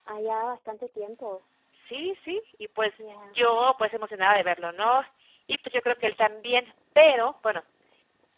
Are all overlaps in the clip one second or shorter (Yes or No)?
Yes